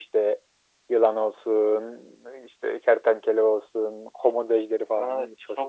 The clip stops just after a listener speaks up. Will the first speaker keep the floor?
No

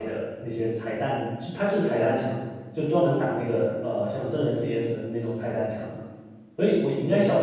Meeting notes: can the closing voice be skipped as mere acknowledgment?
Yes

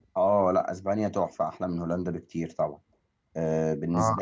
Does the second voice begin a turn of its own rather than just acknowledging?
Yes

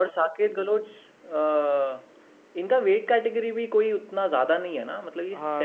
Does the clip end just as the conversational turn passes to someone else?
Yes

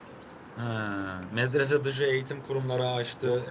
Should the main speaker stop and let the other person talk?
Yes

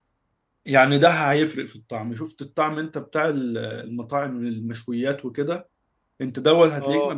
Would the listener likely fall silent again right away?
Yes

